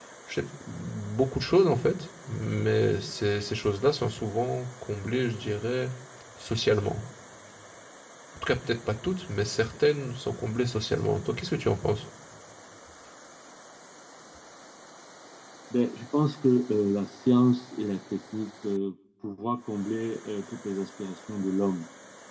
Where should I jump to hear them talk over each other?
none

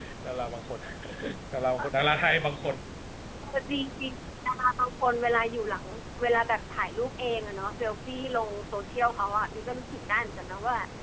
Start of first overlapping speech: none

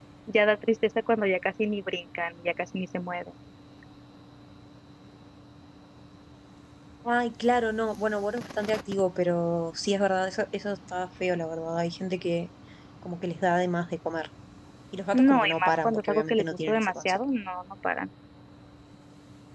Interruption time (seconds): 15.1 s

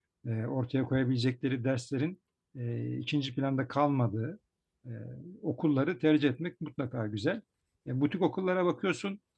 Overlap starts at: none

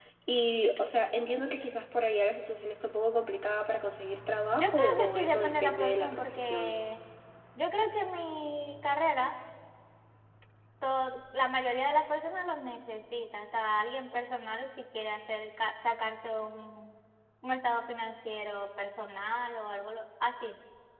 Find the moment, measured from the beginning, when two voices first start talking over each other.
4.5 s

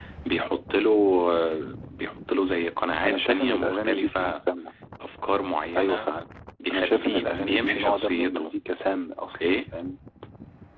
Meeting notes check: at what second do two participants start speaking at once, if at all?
3.0 s

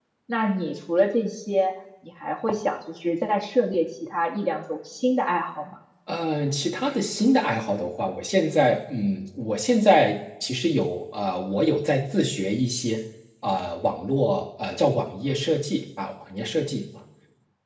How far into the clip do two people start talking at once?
none

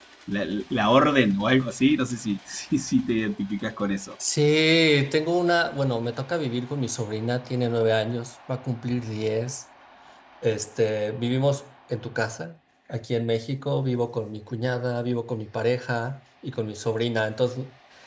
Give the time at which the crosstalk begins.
none

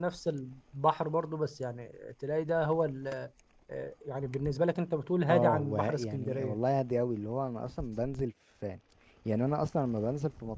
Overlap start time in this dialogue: 5.3 s

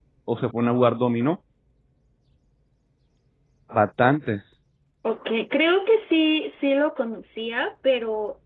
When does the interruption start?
none

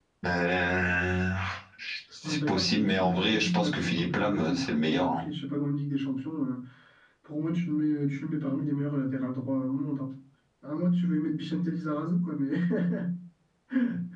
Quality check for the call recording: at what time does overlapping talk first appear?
2.2 s

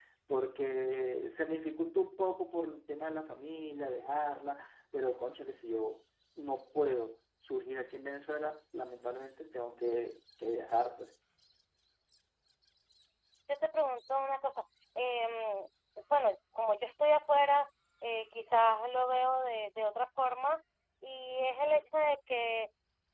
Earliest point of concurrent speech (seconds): none

